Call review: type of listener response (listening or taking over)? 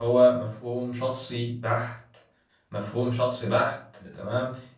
listening